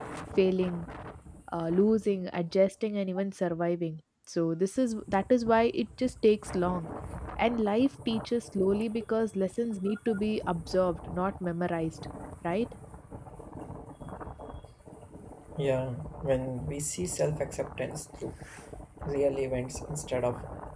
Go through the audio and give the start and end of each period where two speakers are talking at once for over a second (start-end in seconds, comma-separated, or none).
none